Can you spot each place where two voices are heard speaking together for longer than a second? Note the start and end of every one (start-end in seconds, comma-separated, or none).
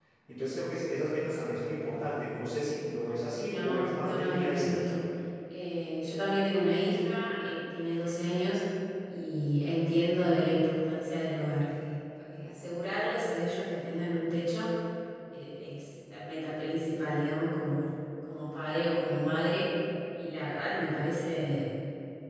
3.4-4.8